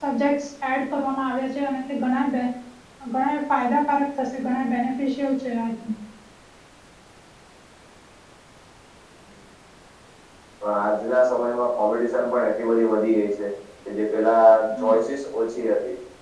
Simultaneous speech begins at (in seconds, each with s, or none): none